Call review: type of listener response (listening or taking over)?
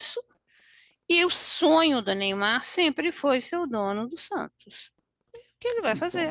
taking over